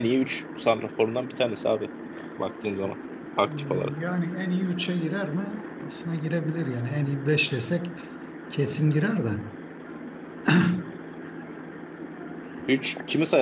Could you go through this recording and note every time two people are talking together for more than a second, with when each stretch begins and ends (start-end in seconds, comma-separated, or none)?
none